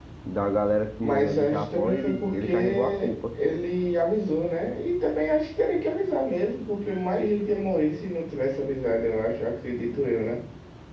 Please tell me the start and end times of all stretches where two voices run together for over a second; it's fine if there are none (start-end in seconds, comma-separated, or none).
1.0-3.4